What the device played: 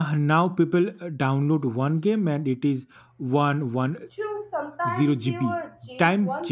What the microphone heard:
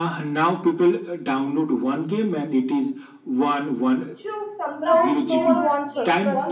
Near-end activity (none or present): present